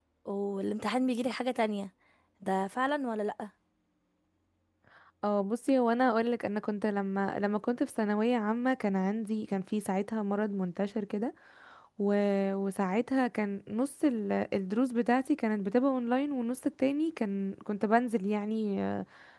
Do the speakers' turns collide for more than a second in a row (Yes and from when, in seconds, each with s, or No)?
No